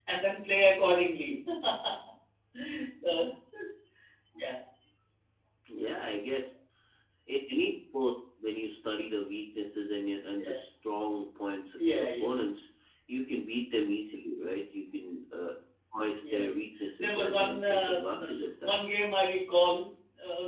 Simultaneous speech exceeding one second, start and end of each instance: 17.0-18.2

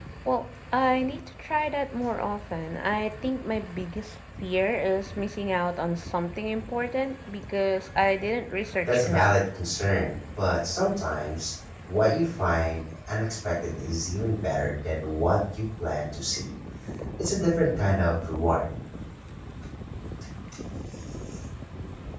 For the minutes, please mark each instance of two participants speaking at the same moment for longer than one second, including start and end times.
none

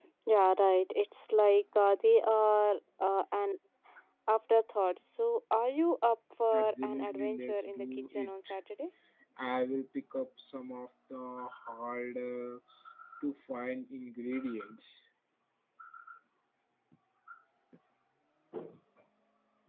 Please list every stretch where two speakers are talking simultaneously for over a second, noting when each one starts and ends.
6.5-8.6

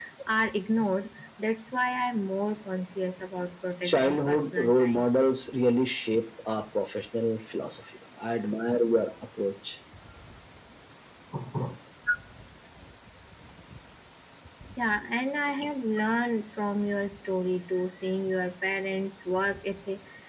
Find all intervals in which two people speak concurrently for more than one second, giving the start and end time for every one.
3.9-5.1

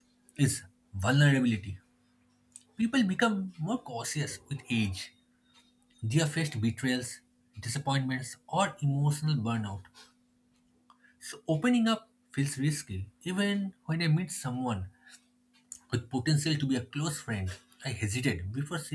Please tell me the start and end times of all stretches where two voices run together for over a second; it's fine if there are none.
none

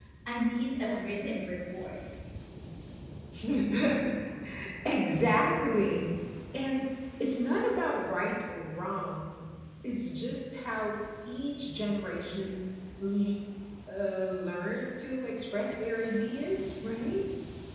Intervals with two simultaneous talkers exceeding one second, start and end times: none

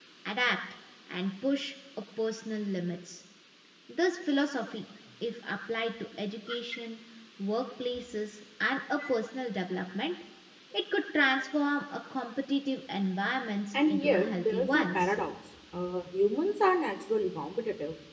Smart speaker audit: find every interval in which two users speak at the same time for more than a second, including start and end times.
13.9-15.1

